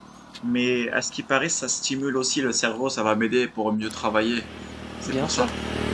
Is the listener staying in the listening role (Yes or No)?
No